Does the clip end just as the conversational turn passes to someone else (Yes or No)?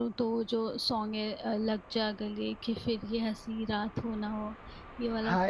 Yes